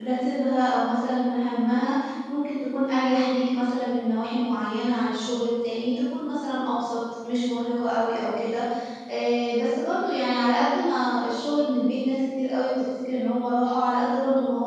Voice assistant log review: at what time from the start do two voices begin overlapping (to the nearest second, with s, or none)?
none